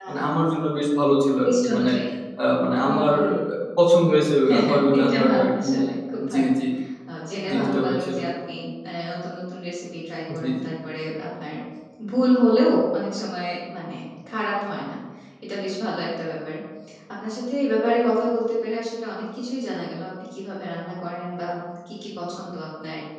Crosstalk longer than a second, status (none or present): present